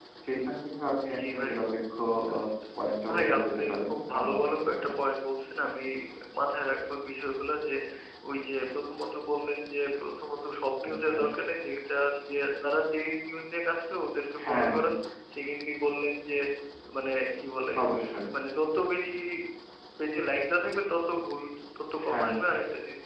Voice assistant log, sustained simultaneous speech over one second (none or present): present